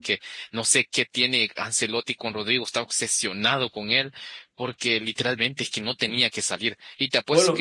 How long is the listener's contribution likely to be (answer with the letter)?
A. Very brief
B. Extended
A